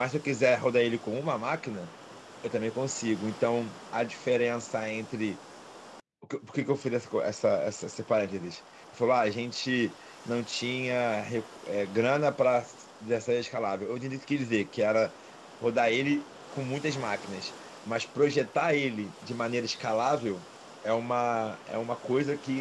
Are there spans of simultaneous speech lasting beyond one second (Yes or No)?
No